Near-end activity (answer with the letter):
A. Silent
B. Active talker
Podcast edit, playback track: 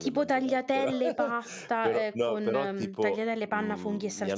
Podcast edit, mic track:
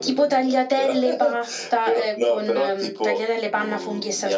A